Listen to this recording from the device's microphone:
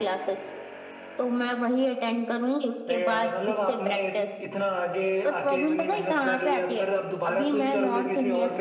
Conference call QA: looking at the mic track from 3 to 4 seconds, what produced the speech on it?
both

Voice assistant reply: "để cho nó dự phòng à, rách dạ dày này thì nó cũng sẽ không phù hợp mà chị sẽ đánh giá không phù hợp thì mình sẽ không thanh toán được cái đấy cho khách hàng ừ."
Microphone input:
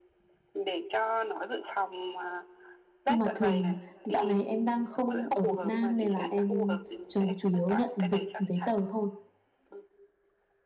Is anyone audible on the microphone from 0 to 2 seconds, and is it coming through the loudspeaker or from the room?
echo only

